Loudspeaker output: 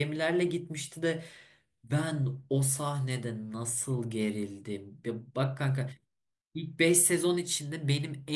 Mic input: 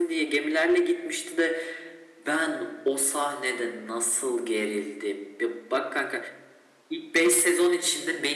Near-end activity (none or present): none